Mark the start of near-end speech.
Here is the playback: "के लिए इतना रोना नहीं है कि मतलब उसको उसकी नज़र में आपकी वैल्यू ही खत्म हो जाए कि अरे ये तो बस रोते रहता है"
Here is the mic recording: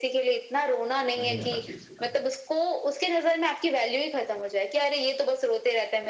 1.2 s

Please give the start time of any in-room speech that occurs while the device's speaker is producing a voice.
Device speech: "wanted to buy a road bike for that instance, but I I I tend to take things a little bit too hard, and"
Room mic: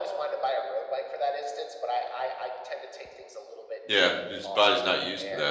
3.8 s

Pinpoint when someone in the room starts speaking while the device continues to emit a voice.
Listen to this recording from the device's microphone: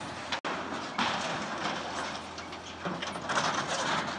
none

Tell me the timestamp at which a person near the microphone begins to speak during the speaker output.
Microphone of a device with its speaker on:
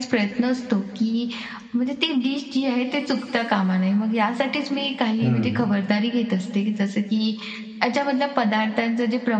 5.2 s

